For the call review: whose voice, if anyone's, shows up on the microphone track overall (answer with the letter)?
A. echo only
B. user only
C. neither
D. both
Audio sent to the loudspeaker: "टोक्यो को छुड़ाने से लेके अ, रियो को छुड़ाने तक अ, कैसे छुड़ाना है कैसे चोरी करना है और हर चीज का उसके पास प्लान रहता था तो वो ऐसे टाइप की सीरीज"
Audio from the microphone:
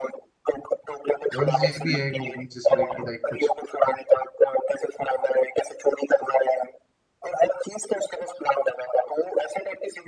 D